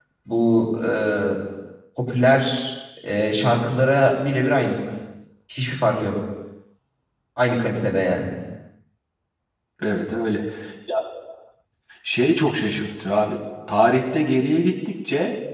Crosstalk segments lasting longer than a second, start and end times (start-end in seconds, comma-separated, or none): none